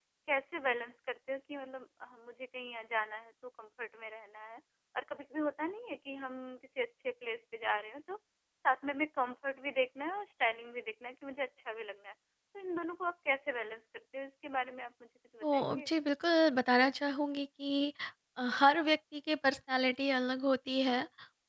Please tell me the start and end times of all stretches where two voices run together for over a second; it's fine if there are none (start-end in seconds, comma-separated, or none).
none